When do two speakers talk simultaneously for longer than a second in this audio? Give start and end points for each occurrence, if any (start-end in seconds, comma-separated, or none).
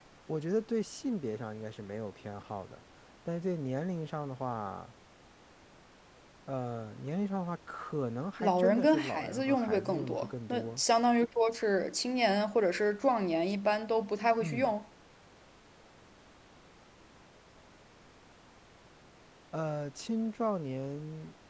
8.4-10.8